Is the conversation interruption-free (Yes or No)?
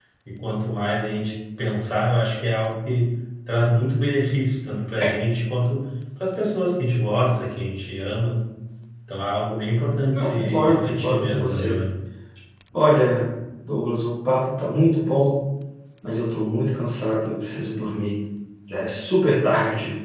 No